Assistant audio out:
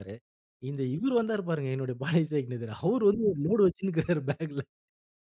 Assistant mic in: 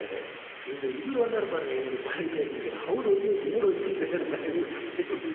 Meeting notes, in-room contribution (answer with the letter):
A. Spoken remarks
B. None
A